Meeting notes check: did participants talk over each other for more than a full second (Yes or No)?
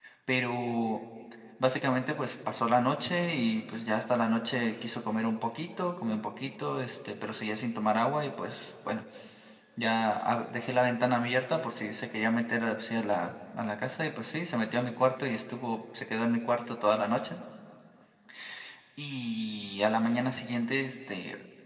No